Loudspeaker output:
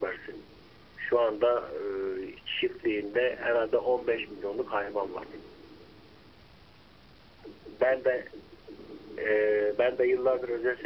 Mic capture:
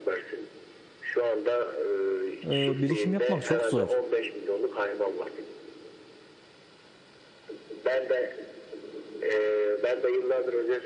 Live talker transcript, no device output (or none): e, birikim yapmak çok zor.